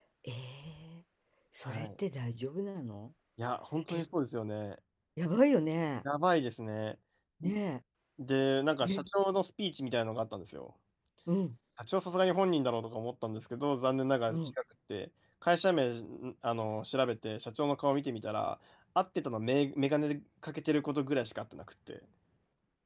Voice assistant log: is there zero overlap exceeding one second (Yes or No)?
Yes